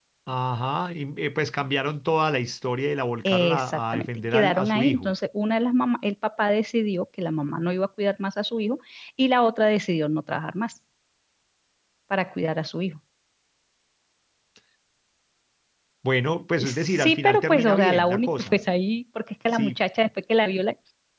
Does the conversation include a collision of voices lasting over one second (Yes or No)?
Yes